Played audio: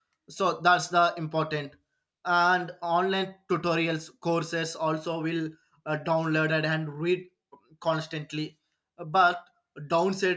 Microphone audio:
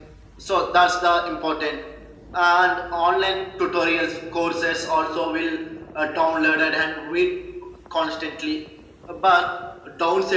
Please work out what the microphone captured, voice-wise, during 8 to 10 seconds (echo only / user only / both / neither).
echo only